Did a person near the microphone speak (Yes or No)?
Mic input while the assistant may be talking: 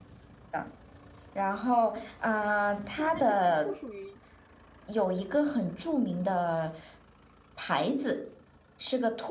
Yes